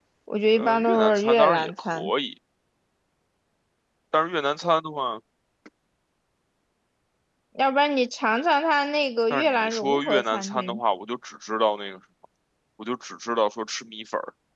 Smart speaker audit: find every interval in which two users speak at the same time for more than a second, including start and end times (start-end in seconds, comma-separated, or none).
0.6-2.1, 9.3-10.8